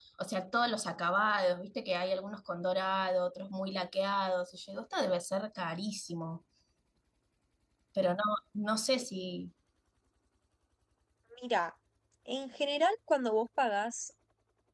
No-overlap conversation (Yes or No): Yes